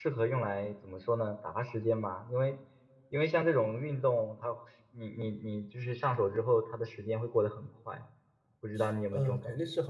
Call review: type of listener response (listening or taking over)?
taking over